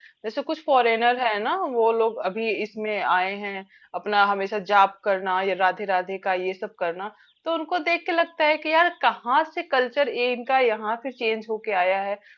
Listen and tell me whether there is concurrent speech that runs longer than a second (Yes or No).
No